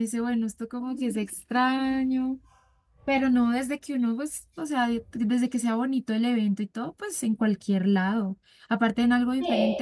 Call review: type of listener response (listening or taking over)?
listening